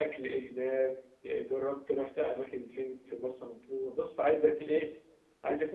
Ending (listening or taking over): listening